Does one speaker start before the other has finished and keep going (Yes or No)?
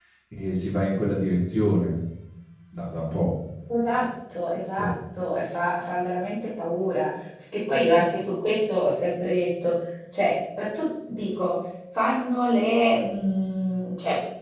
No